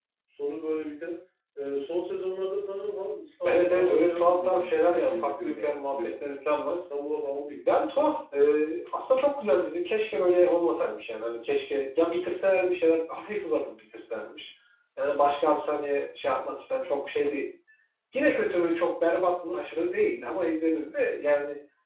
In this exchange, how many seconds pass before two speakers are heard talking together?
3.4 s

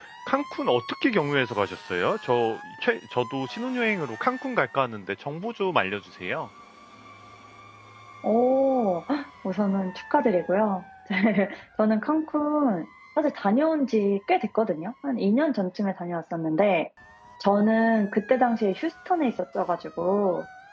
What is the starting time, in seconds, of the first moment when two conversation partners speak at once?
none

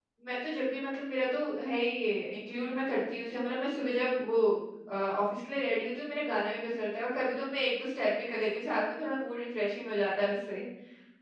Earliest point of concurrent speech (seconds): none

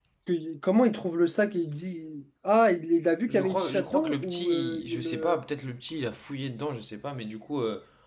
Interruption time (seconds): 3.3 s

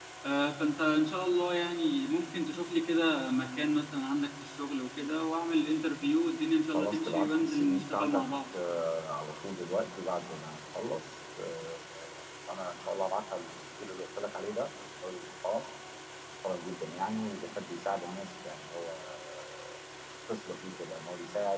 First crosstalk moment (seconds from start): 6.7 s

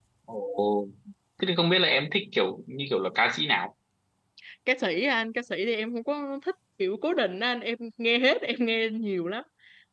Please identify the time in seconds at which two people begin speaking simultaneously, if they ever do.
none

